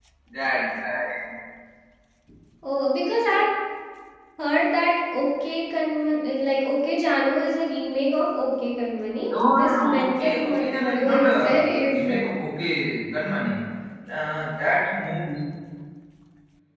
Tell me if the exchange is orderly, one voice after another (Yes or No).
No